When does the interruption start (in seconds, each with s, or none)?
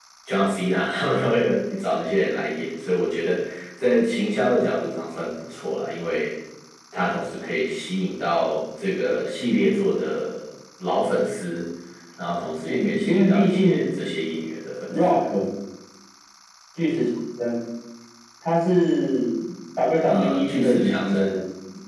12.6 s